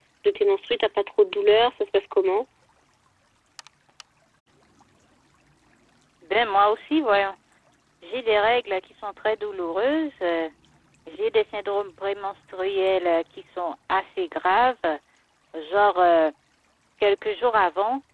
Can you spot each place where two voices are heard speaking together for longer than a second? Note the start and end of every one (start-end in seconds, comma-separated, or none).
none